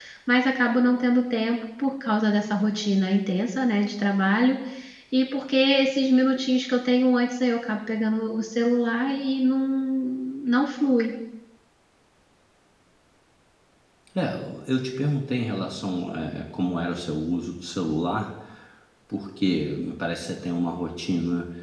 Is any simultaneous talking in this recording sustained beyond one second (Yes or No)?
No